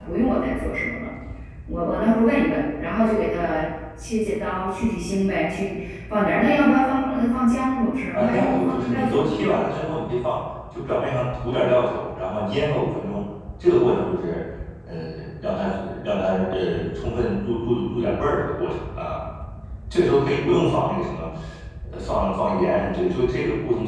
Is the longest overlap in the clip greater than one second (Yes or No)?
Yes